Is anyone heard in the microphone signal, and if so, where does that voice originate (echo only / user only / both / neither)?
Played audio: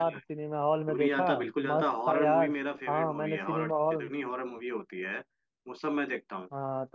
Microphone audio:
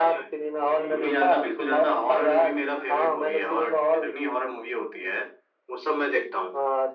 both